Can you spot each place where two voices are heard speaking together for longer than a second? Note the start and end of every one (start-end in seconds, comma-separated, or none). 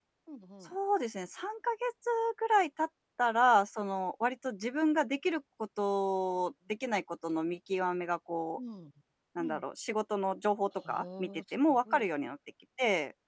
10.8-12.0